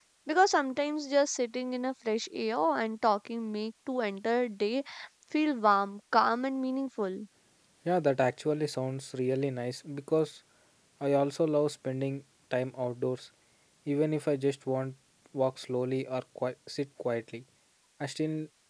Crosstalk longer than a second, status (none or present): none